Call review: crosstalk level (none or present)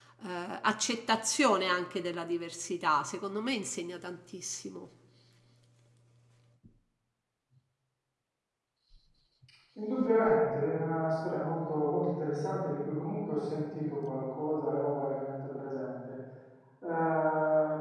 none